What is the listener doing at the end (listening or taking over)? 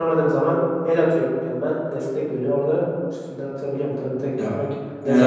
taking over